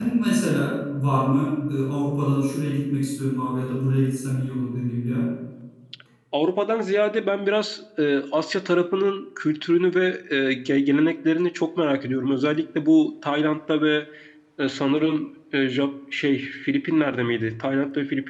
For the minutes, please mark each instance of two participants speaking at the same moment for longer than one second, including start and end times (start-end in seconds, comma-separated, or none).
none